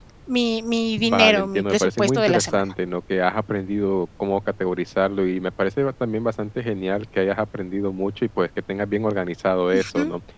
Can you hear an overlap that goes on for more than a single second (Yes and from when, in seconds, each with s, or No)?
Yes, from 1.0 s